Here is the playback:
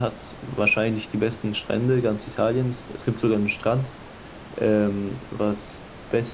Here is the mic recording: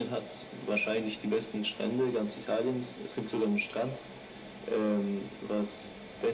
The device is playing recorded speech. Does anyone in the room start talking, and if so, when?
none

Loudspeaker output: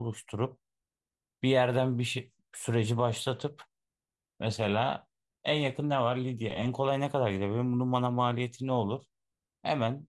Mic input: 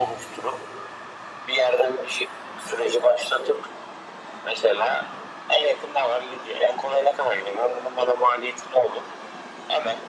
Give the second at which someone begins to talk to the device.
none

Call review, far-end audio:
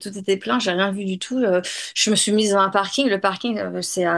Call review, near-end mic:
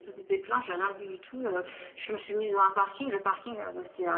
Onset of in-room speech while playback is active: none

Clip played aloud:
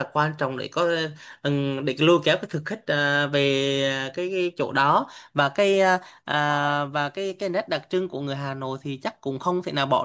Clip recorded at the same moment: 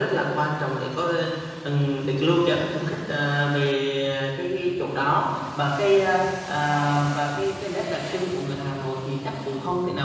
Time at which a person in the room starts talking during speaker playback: none

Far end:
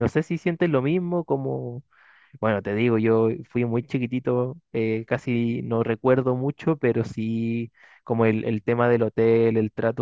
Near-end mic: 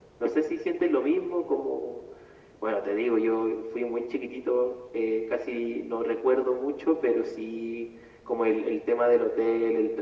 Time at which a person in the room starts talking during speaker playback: none

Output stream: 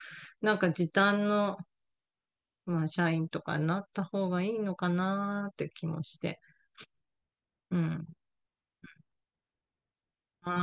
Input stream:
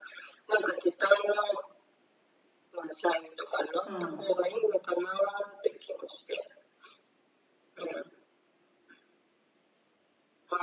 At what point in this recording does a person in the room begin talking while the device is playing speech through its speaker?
4 s

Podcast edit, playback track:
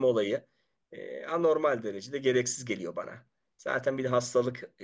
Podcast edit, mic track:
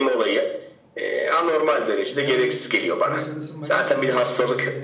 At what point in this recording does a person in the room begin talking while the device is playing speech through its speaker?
2 s

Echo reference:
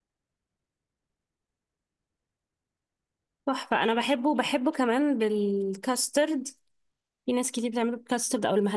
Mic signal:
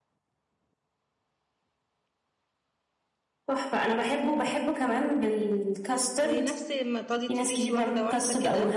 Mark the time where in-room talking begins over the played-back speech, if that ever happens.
6 s

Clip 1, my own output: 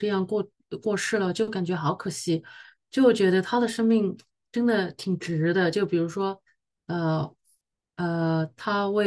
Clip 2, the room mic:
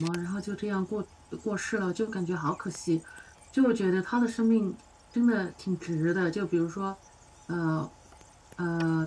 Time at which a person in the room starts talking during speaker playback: none

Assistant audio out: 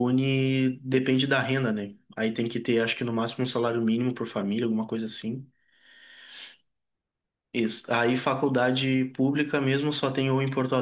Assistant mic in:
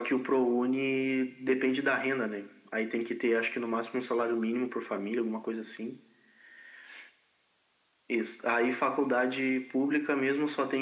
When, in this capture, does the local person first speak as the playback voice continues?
none

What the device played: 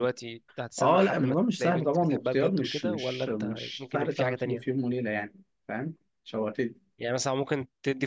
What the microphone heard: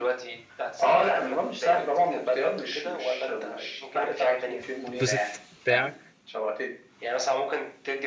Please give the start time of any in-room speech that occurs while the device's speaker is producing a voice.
5 s

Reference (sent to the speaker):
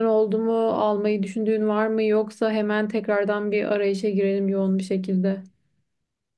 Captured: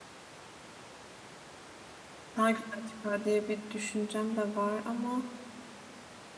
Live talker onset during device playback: 2 s

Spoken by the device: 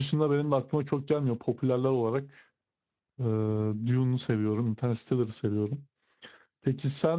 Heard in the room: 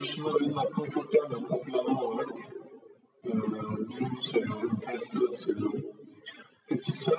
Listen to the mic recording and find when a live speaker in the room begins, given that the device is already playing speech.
none

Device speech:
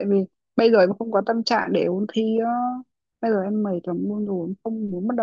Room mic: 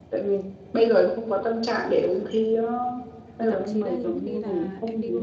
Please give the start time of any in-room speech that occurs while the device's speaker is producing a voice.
3 s

